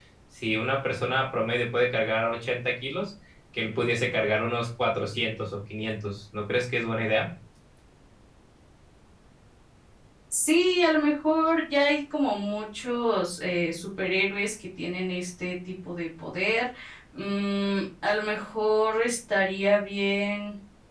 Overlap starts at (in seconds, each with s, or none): none